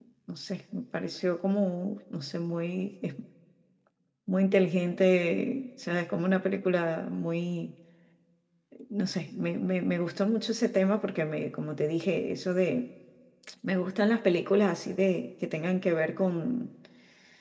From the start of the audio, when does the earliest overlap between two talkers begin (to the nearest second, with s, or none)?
none